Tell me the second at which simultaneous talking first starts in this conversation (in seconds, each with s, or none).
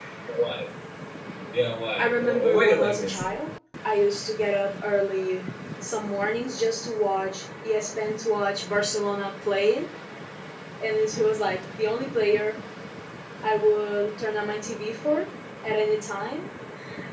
2.0 s